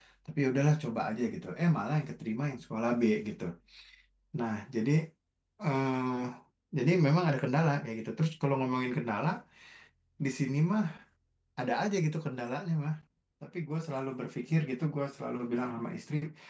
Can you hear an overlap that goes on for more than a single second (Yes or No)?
No